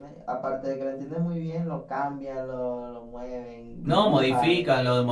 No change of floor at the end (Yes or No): No